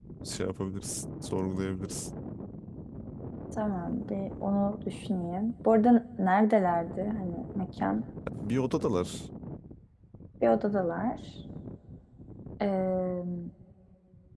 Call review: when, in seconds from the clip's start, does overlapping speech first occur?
none

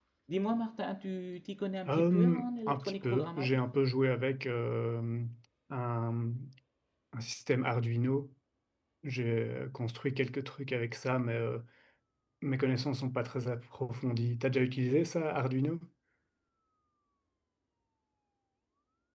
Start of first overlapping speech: 1.9 s

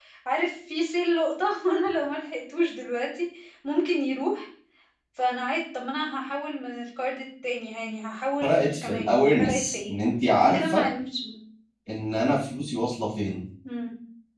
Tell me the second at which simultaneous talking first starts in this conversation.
8.4 s

